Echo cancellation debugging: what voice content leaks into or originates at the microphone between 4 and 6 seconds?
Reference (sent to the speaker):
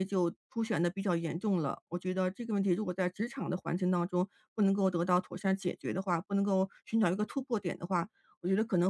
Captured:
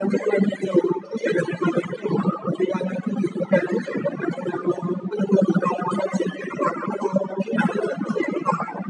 echo only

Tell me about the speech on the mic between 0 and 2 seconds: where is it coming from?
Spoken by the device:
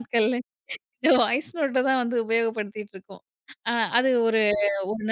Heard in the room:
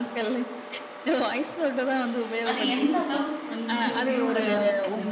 echo only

